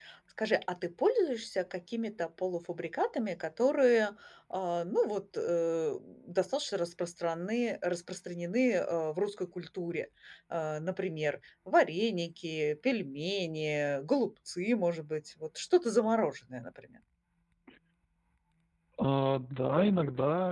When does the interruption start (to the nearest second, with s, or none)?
none